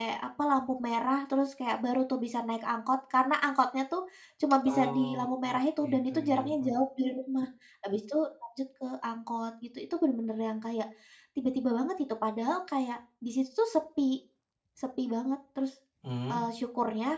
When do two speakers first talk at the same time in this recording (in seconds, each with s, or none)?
4.7 s